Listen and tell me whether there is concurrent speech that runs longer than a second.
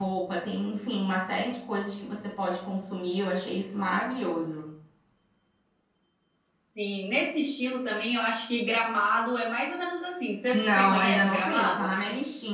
Yes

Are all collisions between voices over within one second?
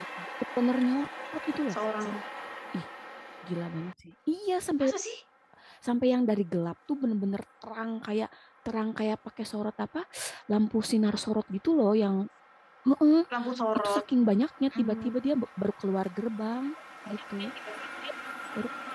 Yes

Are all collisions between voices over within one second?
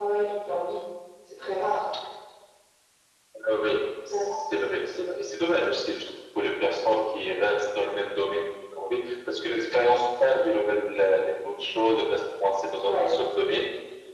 Yes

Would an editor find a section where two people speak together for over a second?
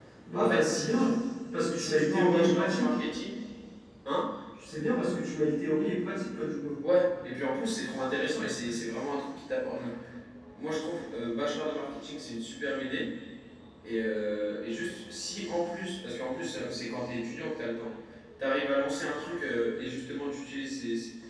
Yes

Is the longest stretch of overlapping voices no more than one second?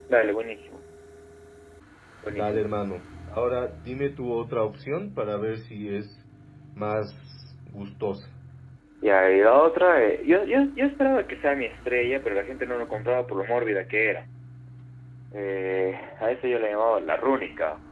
Yes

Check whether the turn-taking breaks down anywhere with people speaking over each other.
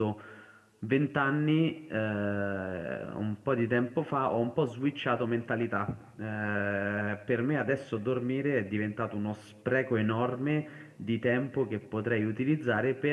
No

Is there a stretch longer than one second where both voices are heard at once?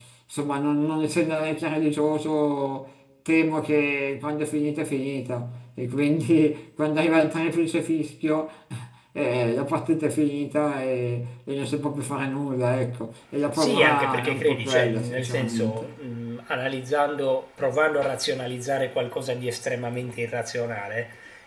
Yes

